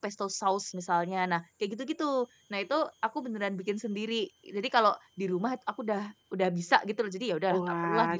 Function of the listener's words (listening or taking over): taking over